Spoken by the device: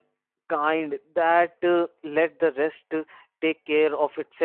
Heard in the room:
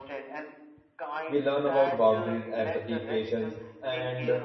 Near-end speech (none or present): present